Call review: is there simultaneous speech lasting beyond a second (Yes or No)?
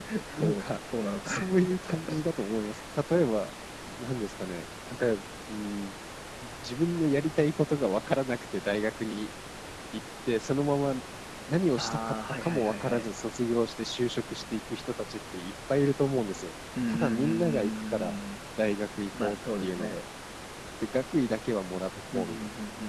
Yes